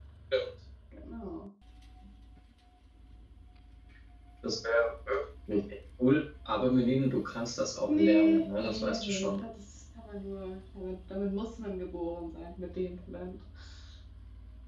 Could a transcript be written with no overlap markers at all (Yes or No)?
No